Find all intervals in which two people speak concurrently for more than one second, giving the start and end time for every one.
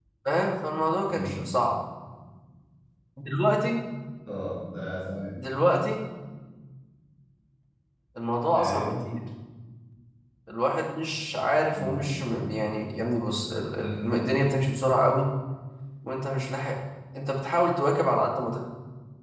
none

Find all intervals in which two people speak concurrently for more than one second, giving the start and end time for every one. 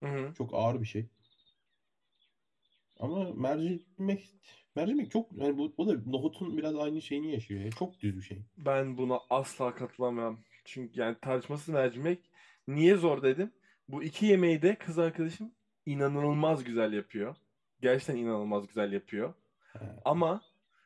none

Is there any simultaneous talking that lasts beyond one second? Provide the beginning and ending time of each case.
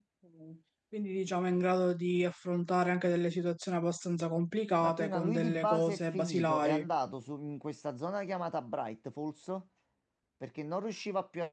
4.8-6.8

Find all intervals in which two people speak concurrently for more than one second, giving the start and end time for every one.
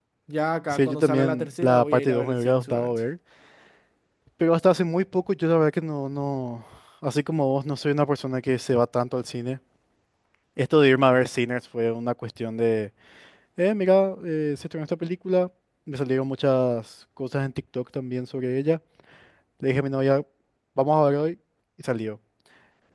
0.7-3.0

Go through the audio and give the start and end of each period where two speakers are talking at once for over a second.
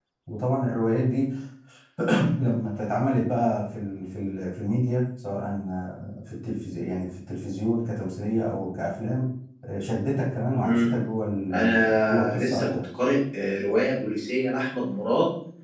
11.5-12.8

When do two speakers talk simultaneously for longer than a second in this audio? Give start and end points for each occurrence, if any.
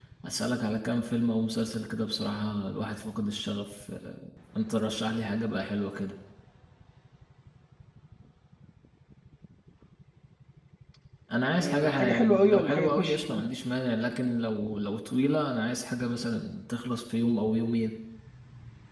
11.6-13.4

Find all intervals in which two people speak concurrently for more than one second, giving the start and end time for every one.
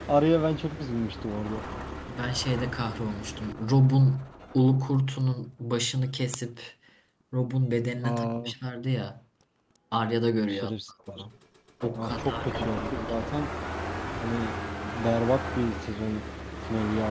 12.0-13.2

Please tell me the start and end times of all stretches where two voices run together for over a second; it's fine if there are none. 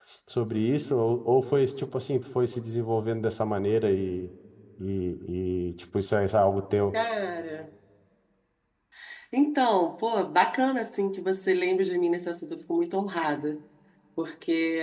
none

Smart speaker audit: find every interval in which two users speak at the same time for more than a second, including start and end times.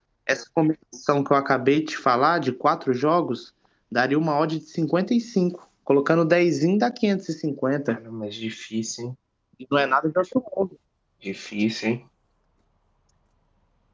none

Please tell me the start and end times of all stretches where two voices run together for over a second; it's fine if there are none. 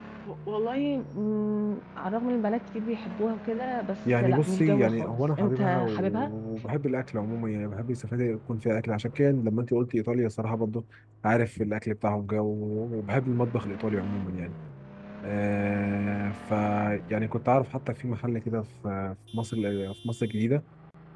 4.2-6.3

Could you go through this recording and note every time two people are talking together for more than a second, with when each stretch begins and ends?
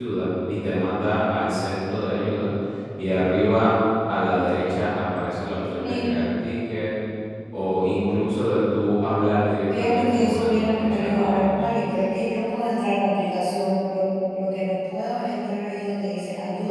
9.8-11.6

